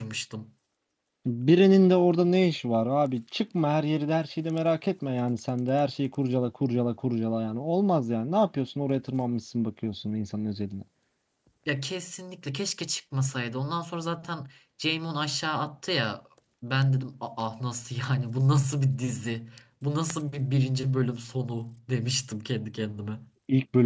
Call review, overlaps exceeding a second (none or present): none